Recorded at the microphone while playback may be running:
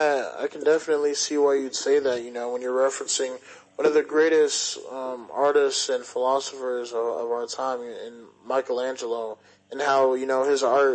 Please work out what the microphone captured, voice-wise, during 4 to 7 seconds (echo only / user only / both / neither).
echo only